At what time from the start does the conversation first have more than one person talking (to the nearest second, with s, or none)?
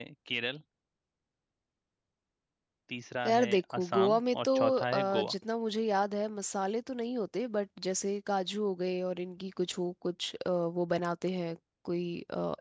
3 s